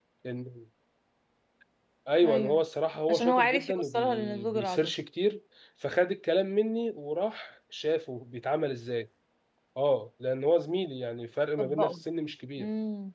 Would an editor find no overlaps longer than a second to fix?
No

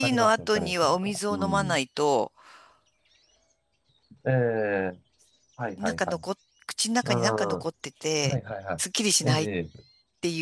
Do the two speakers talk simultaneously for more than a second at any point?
Yes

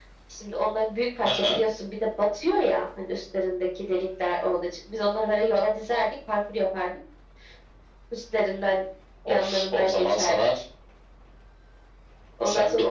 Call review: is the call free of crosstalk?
No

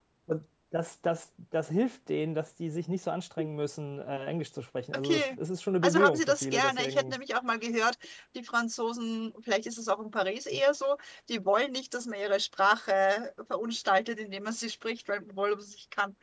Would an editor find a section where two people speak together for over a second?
Yes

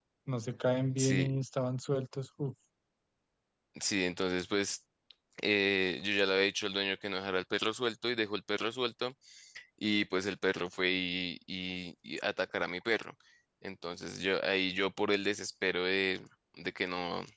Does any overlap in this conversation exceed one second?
No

